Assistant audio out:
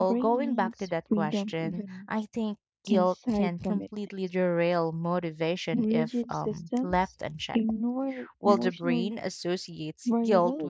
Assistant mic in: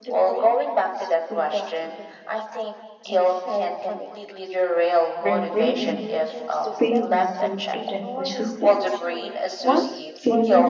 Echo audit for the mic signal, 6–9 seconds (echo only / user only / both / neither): both